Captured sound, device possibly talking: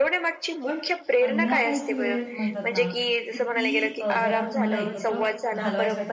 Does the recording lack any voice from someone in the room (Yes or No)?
No